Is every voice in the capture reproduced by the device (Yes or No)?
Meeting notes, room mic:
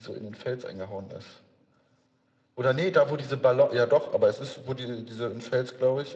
Yes